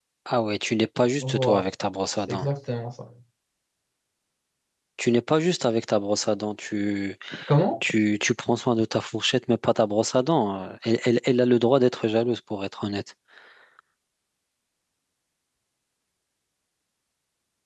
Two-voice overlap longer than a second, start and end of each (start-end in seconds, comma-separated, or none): none